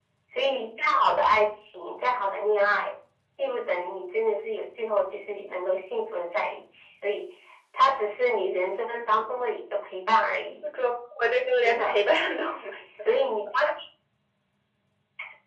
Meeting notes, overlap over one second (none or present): none